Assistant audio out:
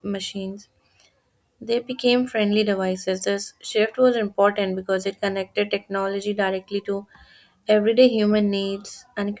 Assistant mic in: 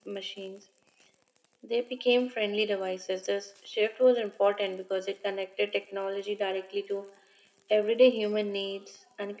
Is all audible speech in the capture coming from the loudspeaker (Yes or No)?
Yes